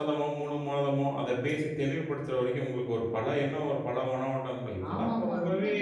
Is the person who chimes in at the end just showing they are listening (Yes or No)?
No